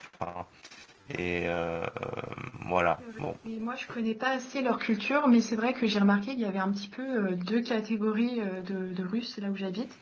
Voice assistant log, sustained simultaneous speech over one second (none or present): none